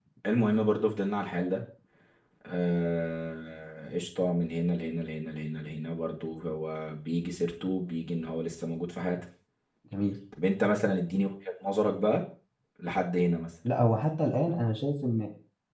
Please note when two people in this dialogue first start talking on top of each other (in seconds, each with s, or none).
none